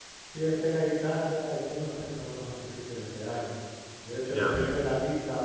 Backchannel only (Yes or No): Yes